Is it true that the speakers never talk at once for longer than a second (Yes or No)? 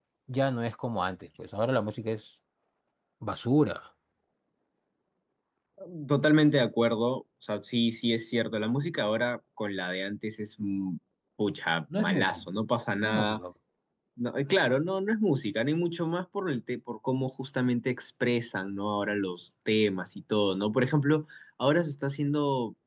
Yes